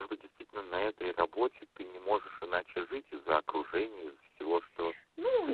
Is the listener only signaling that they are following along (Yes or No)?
No